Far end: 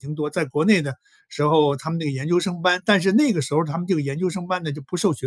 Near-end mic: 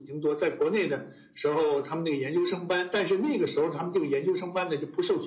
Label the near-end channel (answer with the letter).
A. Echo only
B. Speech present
A